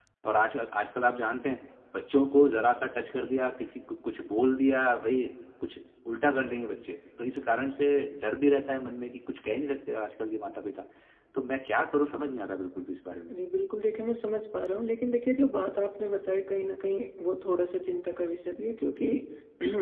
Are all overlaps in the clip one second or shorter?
Yes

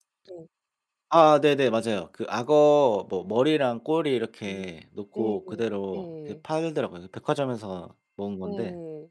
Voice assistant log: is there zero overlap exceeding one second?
Yes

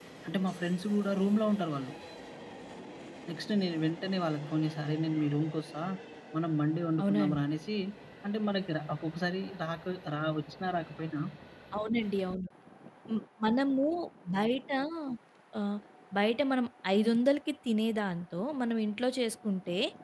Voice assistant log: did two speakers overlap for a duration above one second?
No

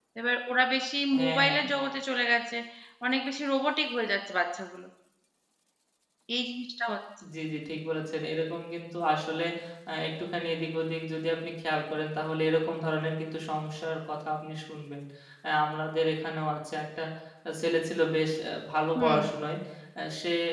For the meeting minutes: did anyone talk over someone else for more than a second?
No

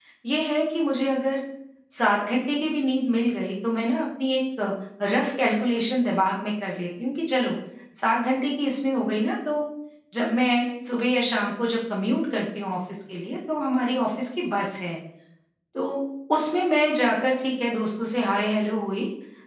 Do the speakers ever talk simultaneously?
No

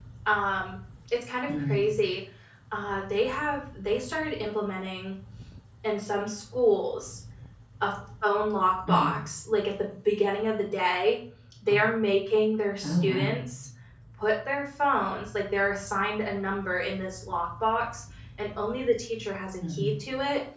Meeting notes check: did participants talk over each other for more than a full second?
No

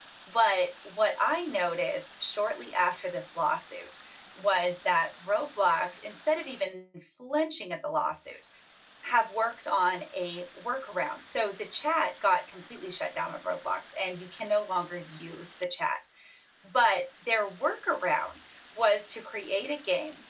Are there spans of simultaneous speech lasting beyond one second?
No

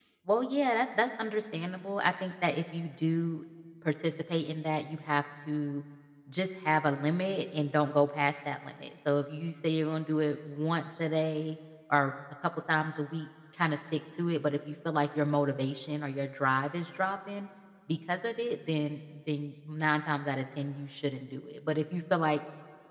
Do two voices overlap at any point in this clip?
No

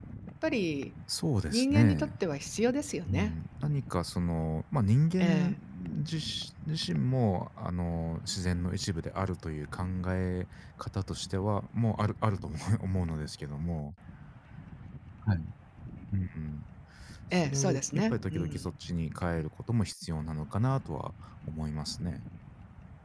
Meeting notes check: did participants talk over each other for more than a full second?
Yes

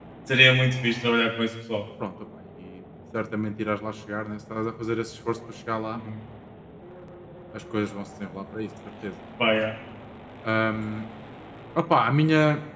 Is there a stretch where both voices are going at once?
No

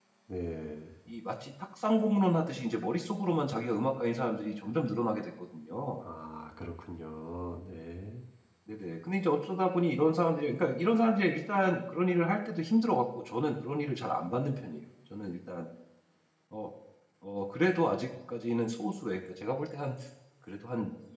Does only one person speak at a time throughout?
Yes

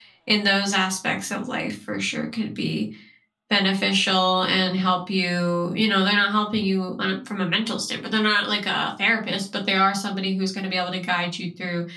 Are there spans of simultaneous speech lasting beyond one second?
No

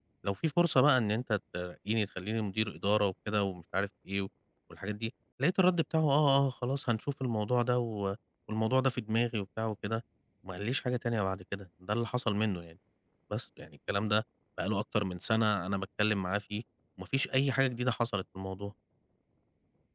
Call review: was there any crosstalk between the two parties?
No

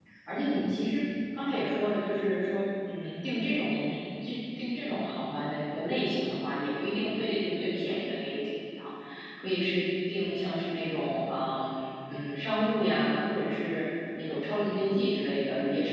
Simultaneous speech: No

